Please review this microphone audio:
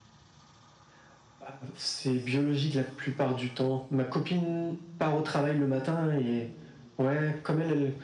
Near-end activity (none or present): none